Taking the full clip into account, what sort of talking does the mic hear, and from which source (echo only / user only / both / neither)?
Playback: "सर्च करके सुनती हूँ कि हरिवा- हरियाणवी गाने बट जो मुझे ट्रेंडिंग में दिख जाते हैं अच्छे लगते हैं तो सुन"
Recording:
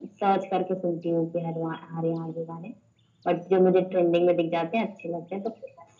echo only